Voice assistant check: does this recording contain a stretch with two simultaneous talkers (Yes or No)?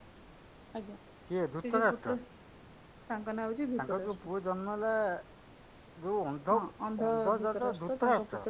Yes